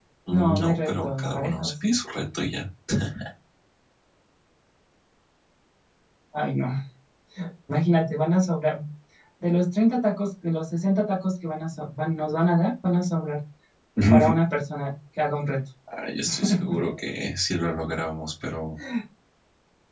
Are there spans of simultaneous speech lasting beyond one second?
Yes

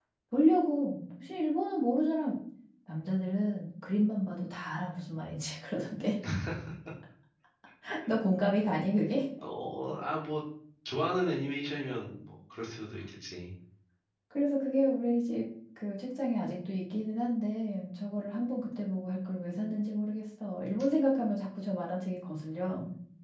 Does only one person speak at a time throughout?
Yes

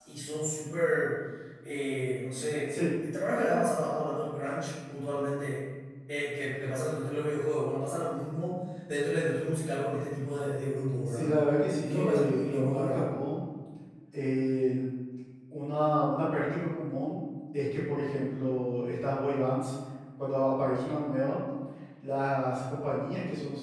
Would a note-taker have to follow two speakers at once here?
Yes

